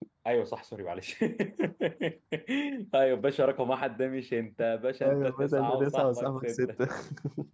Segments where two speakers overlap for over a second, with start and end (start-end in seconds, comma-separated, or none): 5.0-6.6